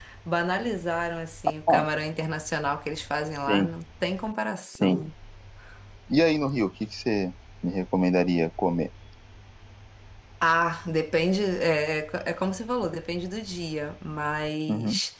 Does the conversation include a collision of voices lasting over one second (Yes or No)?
No